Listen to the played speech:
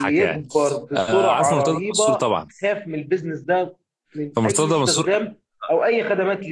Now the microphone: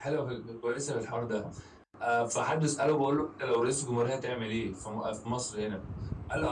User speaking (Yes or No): Yes